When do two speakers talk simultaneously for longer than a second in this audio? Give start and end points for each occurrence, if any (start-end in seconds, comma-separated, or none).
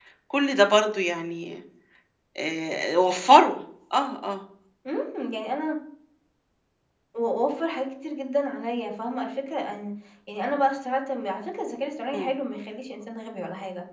none